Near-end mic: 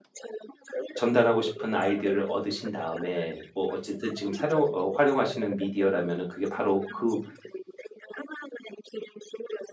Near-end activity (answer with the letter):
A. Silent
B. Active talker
B